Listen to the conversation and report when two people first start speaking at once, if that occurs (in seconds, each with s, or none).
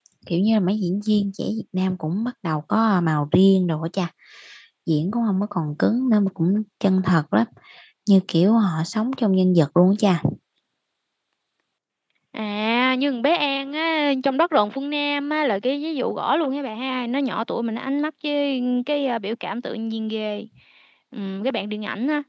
none